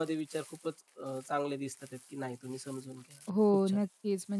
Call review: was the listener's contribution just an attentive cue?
No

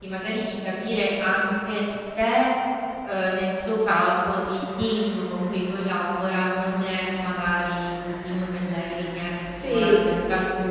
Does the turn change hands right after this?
No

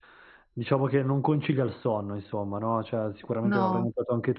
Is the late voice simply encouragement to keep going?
Yes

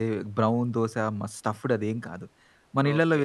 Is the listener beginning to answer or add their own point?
Yes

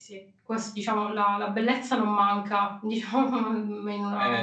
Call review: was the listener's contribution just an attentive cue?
No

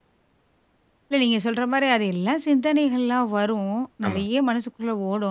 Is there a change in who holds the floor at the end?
No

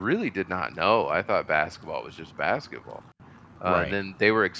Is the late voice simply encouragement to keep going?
Yes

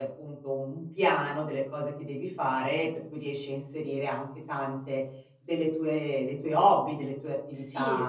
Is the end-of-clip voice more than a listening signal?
Yes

